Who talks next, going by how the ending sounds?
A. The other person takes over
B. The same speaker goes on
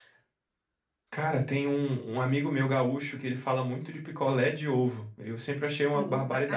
A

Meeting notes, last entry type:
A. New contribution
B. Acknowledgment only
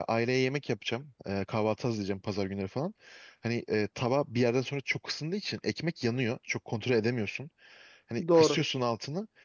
B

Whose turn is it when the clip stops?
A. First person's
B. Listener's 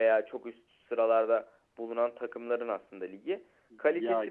A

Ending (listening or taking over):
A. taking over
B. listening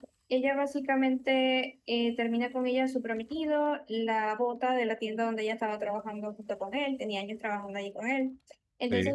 B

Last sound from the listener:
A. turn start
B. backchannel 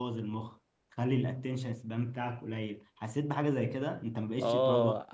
A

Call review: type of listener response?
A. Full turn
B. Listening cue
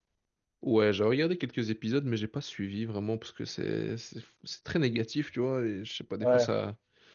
B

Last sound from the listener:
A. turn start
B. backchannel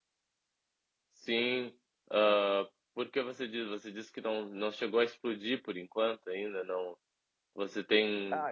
B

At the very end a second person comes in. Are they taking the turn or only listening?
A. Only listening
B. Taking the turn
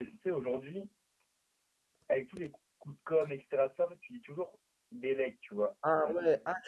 B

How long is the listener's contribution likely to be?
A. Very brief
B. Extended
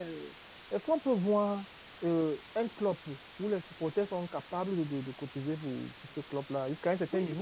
B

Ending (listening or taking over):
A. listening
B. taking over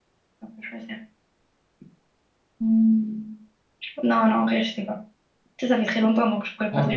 B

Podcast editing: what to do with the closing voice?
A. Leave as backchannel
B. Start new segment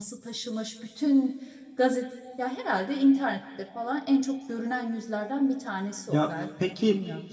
B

